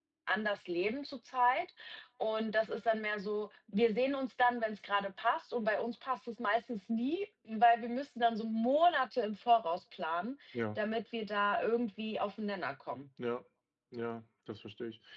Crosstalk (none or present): none